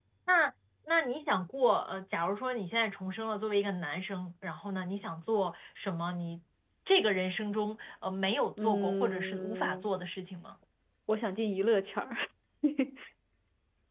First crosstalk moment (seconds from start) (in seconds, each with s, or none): 8.6 s